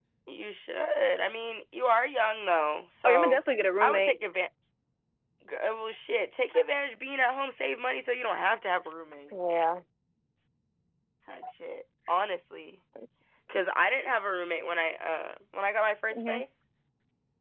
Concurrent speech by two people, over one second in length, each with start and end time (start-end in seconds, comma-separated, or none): none